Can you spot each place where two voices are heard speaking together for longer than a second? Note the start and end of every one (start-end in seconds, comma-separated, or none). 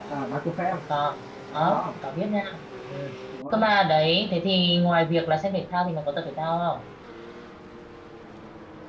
none